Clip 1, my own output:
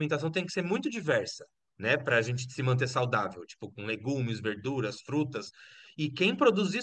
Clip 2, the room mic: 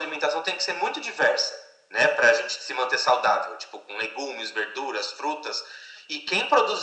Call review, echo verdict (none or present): present